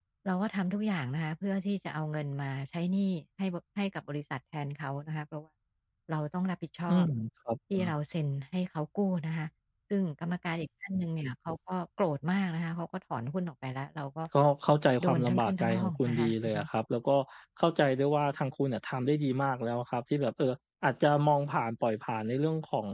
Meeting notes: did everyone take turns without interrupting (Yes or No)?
No